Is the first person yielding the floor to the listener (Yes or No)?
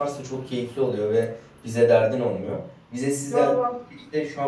No